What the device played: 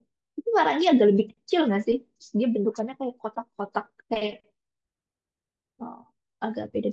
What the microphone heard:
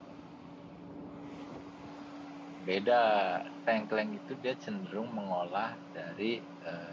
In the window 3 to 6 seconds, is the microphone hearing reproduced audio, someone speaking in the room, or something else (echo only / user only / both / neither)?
user only